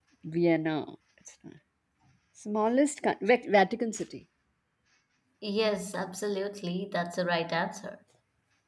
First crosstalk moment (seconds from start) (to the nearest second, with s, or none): none